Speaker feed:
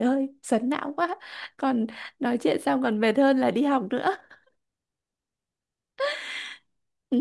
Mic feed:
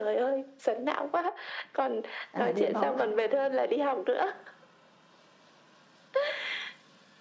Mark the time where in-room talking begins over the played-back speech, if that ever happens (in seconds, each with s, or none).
2.3 s